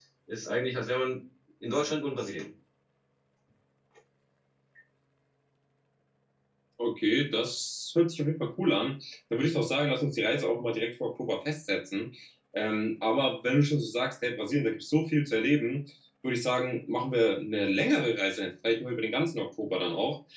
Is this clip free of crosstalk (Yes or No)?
Yes